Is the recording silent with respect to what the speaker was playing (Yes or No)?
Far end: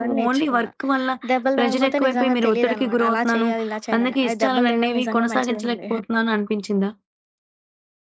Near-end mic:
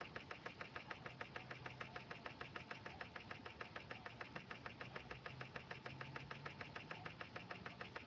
Yes